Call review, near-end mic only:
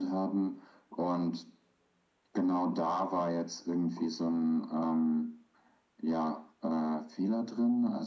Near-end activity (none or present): none